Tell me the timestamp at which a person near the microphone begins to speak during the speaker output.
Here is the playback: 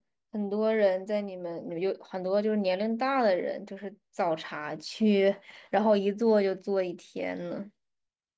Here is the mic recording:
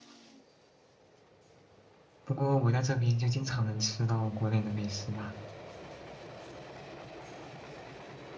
2 s

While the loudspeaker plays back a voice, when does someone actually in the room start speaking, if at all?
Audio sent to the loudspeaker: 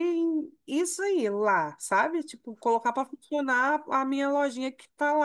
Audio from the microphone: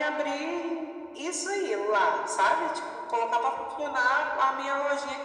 none

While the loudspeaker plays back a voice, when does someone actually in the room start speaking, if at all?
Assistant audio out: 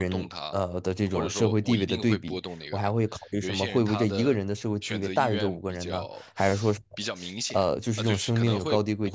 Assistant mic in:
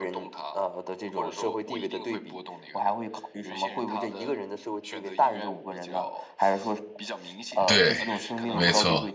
8 s

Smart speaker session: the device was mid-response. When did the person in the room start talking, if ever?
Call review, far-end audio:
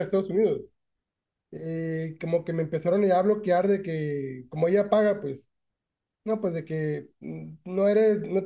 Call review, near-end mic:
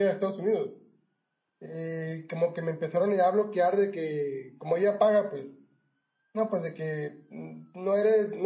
none

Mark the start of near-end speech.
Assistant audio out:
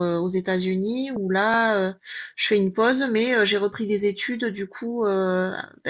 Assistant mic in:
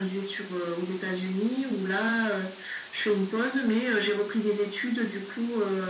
none

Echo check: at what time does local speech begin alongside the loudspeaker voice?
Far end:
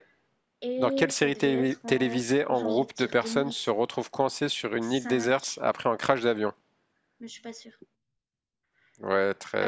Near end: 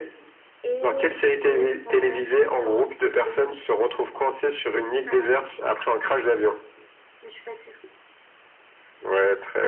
none

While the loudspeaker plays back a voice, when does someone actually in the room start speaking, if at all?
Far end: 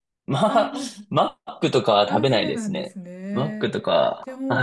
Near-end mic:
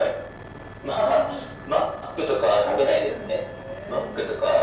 none

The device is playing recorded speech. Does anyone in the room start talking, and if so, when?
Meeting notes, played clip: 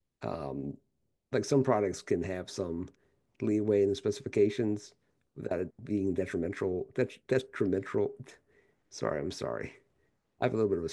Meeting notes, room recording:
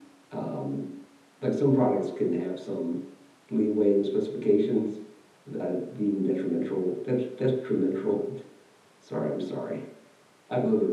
none

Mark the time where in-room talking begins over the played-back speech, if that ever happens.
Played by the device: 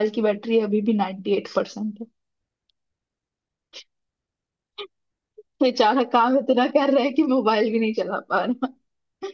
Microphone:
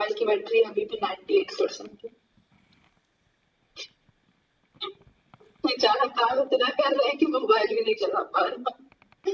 none

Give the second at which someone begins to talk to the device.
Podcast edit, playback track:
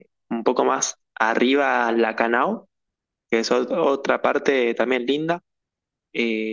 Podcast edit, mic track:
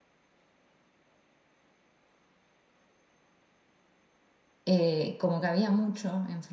5 s

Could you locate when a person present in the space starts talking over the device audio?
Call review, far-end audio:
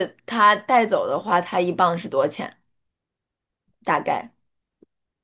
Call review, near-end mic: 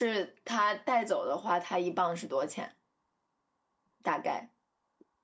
none

